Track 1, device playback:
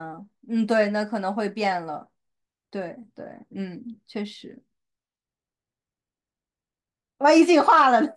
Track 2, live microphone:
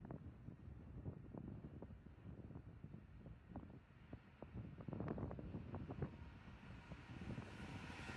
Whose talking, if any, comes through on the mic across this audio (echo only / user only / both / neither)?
neither